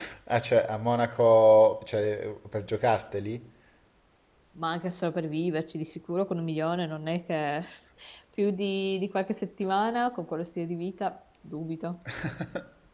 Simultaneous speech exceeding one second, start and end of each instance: none

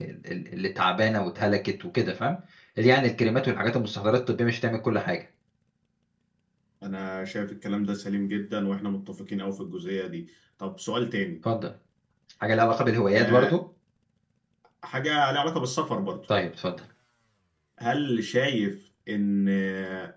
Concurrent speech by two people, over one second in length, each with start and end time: none

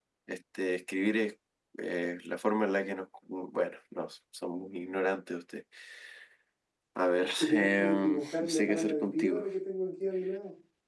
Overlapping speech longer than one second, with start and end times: 7.3-9.5

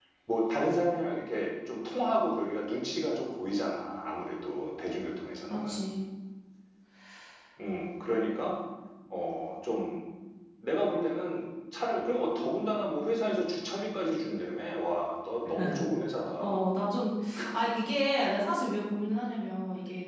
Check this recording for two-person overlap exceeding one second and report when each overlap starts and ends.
none

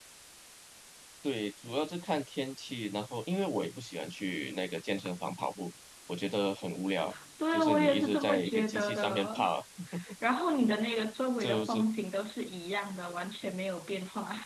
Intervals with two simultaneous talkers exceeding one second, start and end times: 7.5-9.3

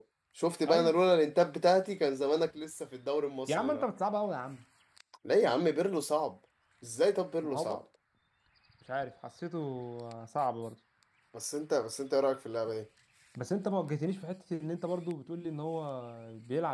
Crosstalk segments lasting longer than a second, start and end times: none

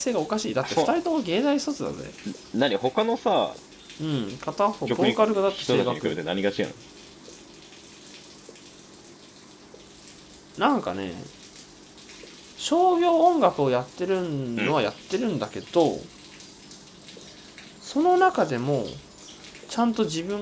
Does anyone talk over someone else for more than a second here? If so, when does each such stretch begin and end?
4.9-6.2

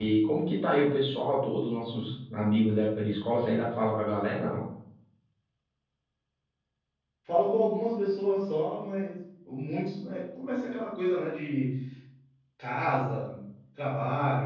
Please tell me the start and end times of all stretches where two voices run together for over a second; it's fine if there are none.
none

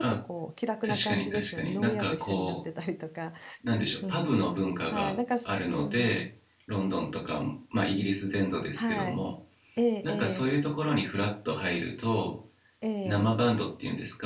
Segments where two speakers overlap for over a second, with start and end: 0.8-2.6

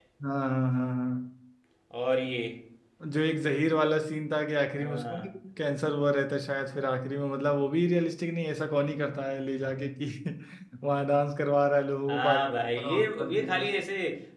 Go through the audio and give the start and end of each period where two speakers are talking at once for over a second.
12.1-13.7

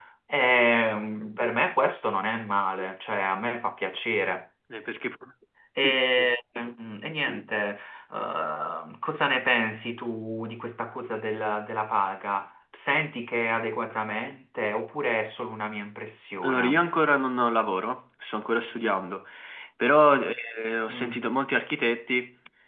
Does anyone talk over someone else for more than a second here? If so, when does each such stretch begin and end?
none

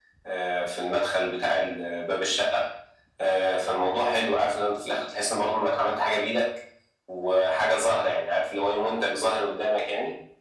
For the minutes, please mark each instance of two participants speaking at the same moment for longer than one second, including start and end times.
none

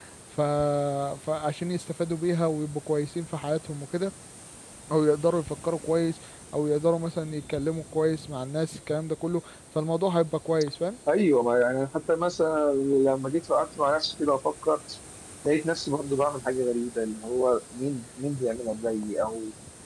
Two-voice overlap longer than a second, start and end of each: none

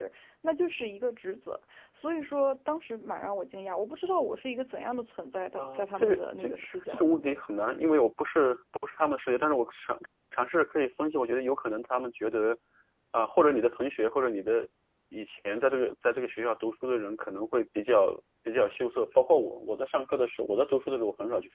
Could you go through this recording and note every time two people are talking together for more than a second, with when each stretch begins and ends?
5.6-7.4

